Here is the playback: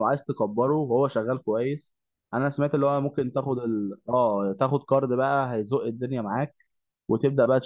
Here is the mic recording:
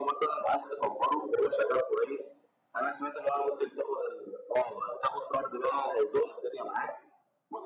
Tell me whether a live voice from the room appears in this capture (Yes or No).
No